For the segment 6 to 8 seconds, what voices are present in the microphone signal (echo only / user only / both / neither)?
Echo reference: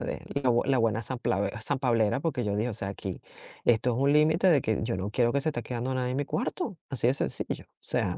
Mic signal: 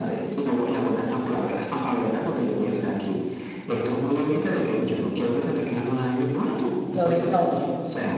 both